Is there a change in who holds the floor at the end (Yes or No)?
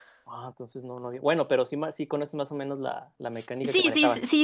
Yes